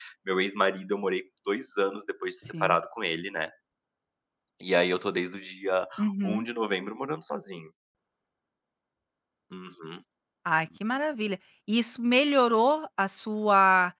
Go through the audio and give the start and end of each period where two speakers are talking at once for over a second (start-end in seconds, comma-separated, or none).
none